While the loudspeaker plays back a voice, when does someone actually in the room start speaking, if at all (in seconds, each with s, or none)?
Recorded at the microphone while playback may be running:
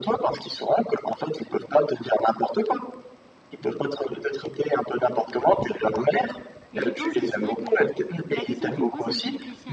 6.7 s